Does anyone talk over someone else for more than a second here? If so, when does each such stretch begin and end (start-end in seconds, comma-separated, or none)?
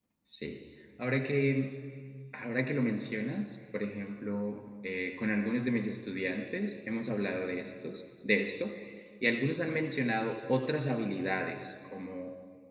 none